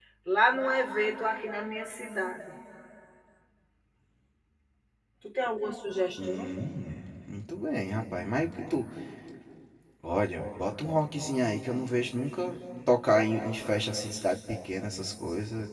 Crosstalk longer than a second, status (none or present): none